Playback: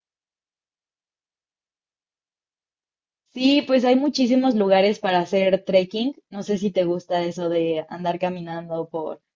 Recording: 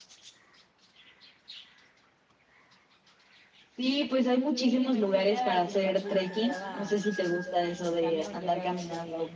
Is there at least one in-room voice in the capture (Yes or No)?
Yes